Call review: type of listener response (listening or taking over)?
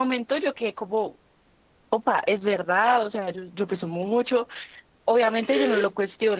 listening